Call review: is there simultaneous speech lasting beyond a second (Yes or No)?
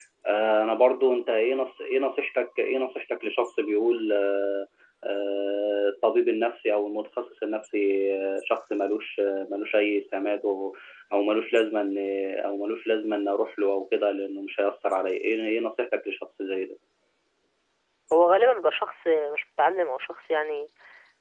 No